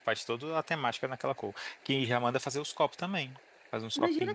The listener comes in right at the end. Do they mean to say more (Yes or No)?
Yes